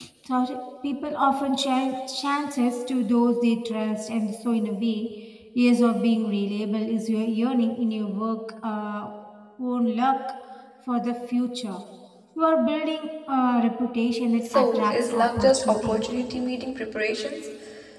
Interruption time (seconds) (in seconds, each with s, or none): 14.4 s